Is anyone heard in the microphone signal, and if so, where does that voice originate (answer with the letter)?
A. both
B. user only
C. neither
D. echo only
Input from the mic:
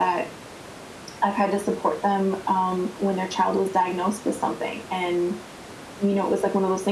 D